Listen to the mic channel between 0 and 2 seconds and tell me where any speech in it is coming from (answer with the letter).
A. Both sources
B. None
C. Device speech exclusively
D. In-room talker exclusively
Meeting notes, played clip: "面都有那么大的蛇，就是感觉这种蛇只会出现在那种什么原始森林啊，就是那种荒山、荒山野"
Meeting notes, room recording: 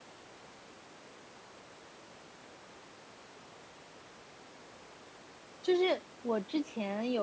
B